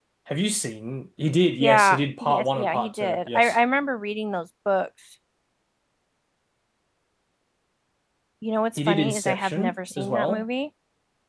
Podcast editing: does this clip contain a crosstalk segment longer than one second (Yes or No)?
Yes